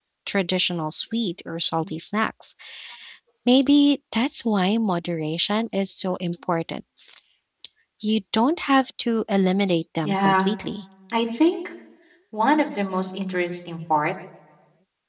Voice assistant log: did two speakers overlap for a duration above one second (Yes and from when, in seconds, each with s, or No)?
No